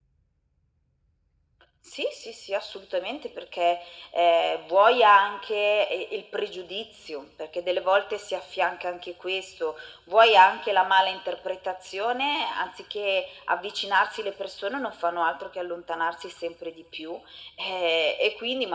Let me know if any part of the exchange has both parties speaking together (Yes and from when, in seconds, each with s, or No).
No